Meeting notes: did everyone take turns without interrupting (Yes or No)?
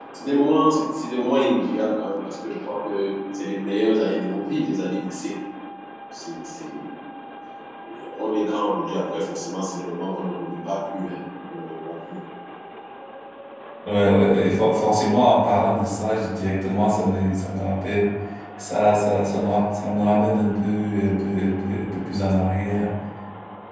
Yes